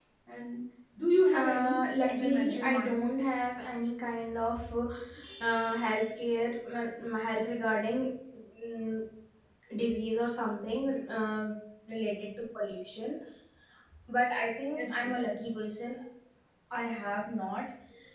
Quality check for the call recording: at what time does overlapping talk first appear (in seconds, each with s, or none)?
1.3 s